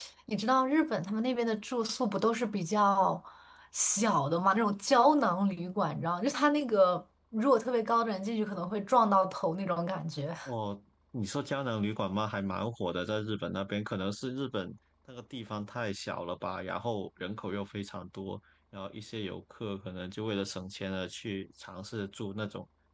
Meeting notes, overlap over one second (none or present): none